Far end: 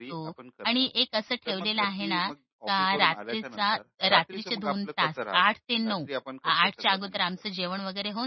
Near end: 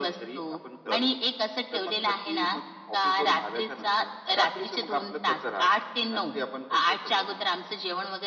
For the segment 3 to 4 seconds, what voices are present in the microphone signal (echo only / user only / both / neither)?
echo only